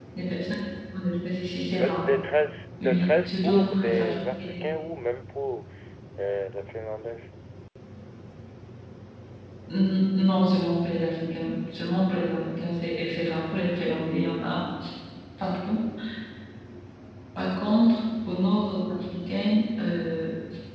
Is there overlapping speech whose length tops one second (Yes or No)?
Yes